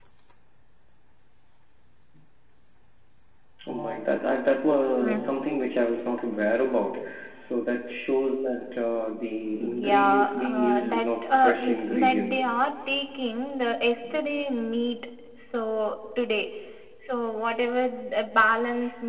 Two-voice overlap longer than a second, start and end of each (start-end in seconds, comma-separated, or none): 9.6-12.6